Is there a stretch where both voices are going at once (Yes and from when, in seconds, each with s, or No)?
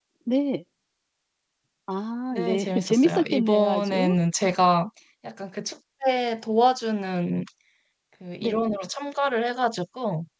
Yes, from 2.3 s